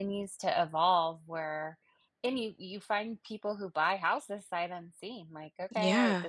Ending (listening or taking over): listening